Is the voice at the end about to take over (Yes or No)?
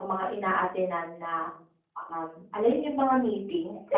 No